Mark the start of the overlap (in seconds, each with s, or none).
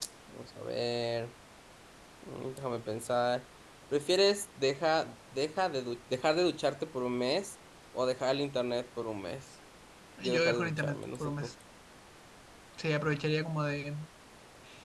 10.3 s